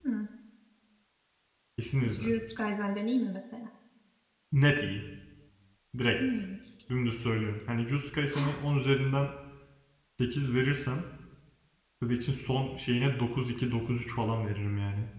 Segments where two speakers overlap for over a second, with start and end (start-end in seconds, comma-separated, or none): none